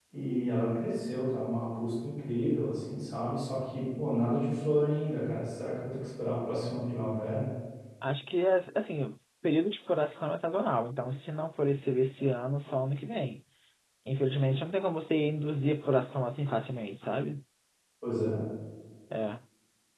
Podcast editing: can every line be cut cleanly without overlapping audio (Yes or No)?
Yes